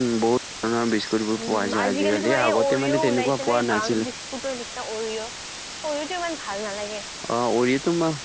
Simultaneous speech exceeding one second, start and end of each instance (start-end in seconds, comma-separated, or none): 1.4-4.1